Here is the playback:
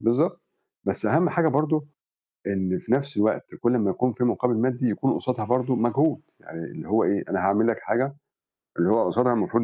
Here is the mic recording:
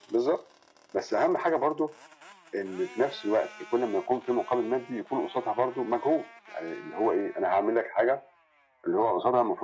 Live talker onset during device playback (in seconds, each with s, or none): none